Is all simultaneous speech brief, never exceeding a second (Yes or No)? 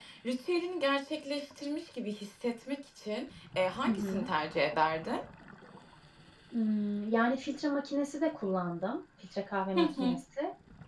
Yes